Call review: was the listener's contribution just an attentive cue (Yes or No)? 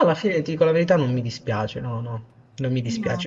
Yes